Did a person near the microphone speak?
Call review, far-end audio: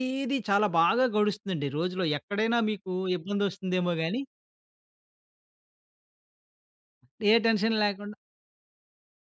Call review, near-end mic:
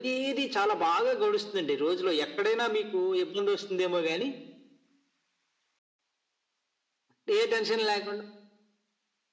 No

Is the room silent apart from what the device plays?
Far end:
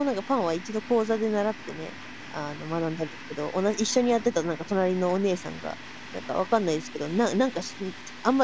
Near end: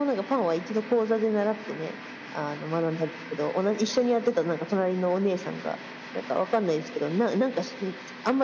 Yes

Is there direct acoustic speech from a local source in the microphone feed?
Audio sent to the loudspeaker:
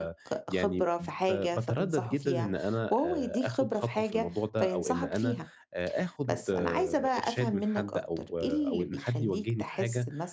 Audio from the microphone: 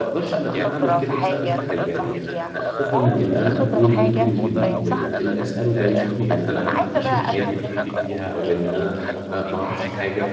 Yes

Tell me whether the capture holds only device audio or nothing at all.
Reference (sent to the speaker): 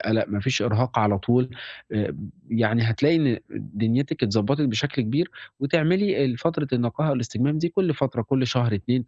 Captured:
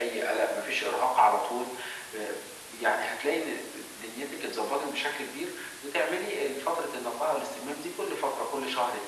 Yes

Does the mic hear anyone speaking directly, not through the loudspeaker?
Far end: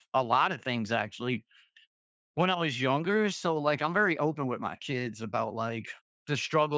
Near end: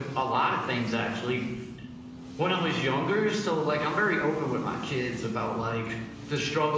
No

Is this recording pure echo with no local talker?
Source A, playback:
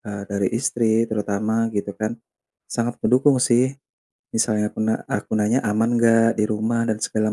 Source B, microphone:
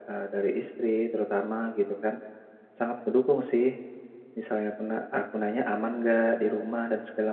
Yes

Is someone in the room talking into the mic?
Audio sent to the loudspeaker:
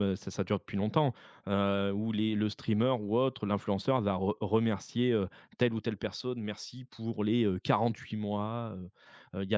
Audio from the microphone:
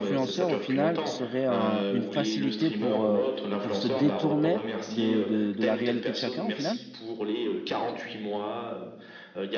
Yes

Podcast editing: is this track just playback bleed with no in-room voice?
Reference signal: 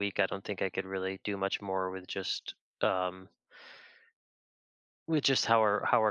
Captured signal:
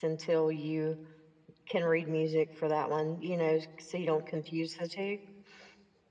No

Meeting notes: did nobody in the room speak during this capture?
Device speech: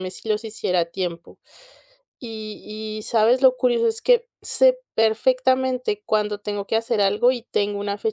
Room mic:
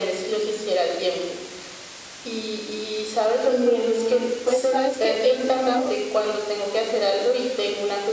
No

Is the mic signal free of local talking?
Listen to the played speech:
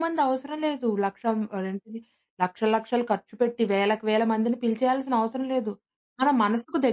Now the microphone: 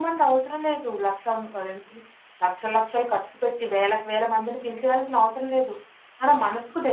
Yes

